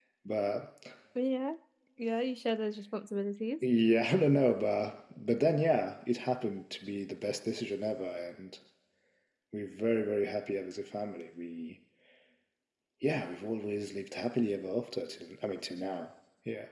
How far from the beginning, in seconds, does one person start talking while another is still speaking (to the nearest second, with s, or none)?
none